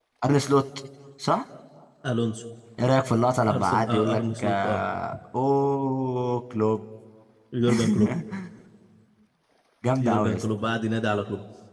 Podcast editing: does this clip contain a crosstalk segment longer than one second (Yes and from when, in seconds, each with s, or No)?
Yes, from 3.5 s